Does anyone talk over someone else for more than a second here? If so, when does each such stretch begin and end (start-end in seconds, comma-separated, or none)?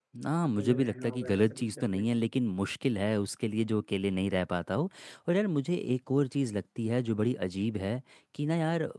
0.6-2.0